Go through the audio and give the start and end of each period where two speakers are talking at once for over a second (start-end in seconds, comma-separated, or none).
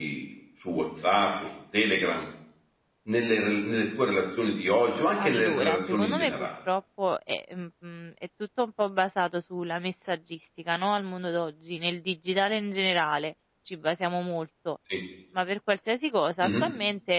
5.2-6.5